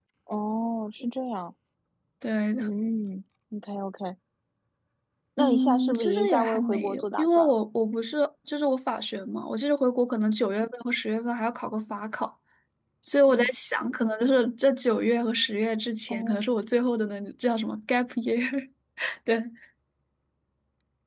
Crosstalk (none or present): present